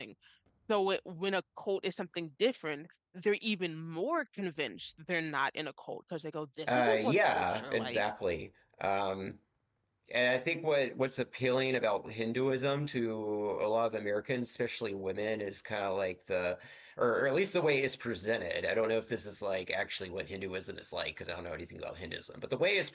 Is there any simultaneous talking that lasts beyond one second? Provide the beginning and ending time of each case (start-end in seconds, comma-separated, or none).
6.7-8.0